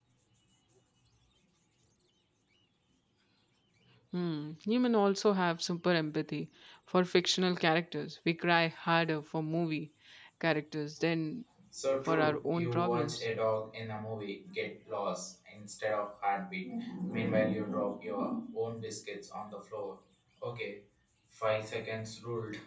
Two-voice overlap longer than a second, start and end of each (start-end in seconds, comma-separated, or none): 12.1-13.3